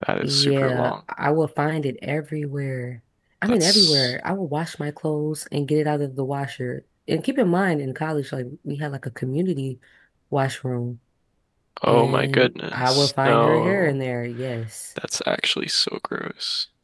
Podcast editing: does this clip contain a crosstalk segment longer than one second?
Yes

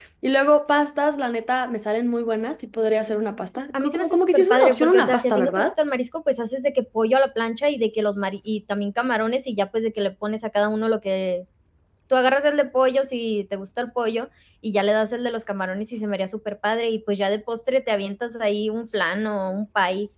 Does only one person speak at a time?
No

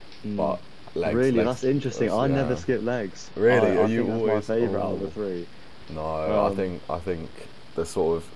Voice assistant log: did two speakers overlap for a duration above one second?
Yes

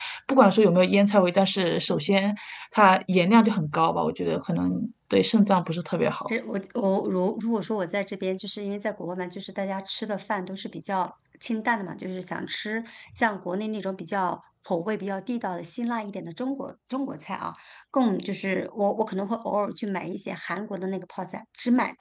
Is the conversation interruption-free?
Yes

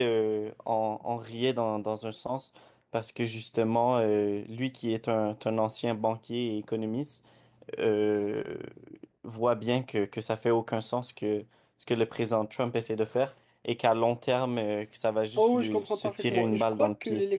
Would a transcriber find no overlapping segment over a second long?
No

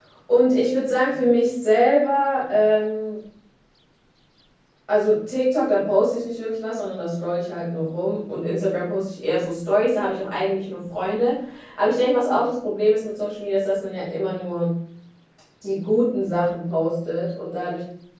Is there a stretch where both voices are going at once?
No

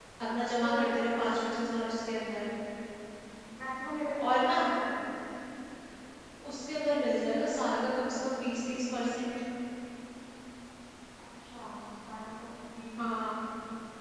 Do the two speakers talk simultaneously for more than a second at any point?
No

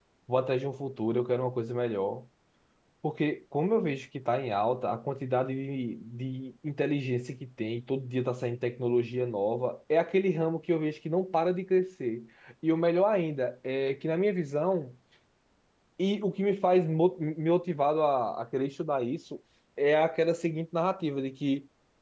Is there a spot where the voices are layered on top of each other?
No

